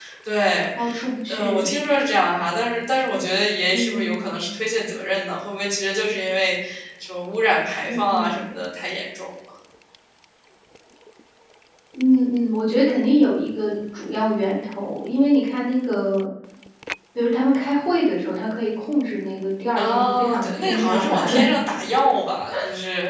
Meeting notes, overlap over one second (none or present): present